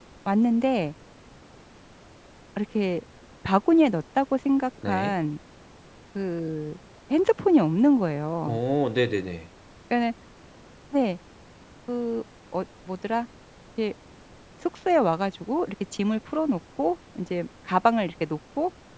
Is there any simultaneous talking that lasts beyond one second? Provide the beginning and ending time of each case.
none

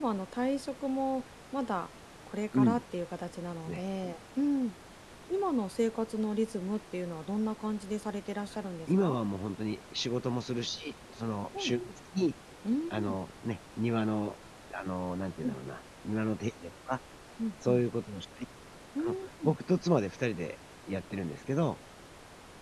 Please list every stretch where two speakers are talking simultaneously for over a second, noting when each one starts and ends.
none

